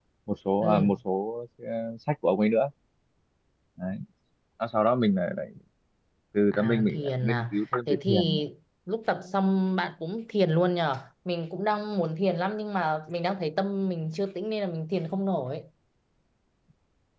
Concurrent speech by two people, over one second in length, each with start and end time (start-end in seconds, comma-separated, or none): 6.5-8.4